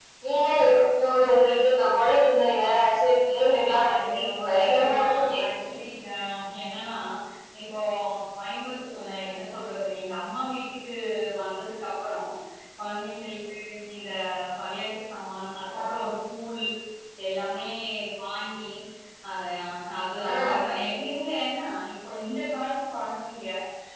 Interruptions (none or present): present